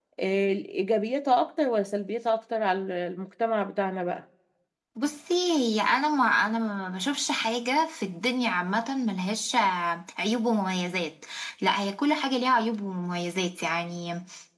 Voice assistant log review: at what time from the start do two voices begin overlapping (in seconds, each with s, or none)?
none